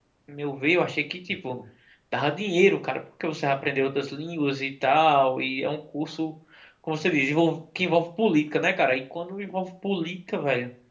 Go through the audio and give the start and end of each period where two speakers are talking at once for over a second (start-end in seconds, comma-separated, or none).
none